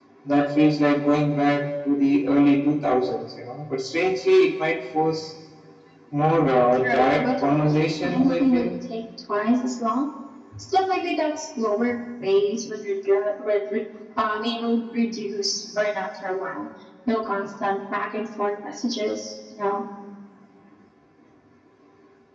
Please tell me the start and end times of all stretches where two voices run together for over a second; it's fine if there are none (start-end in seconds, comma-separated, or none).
6.8-8.7